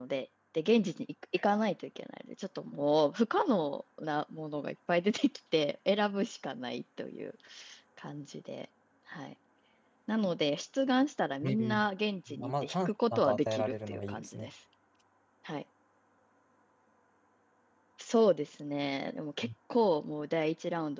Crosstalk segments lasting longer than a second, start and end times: 12.3-14.5

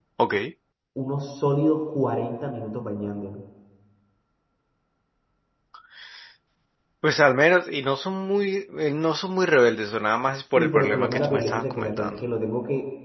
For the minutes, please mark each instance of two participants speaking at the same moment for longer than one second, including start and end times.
10.6-12.1

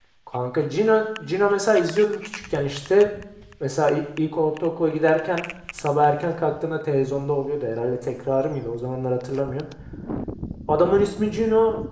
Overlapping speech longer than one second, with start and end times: none

